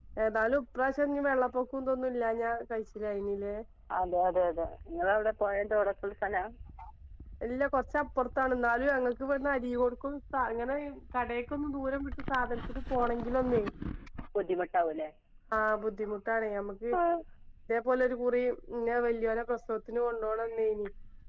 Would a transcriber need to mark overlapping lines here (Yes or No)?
No